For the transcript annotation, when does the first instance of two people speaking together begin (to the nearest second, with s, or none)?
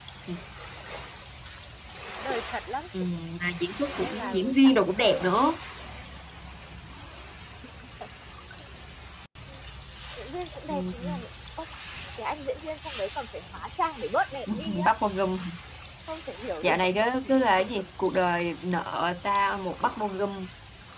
4 s